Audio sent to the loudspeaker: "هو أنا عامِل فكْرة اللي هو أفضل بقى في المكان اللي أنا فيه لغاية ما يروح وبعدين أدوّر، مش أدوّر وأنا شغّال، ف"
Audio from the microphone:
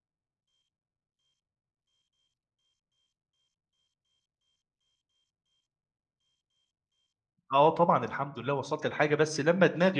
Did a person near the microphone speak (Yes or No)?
Yes